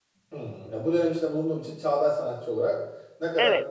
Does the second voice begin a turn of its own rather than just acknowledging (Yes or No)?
Yes